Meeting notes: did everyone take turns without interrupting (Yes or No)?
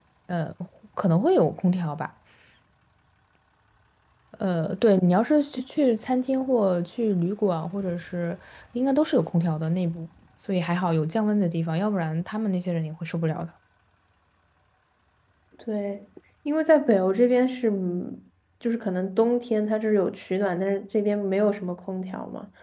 Yes